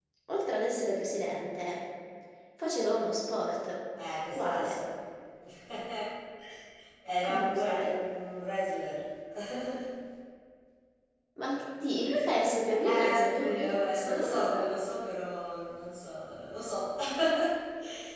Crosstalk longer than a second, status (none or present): present